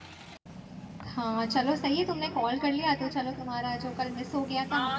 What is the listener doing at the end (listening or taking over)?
taking over